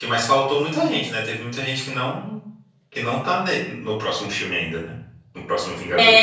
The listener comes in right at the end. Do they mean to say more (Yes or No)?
Yes